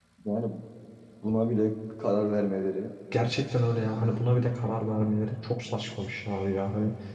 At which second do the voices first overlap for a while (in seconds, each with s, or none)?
none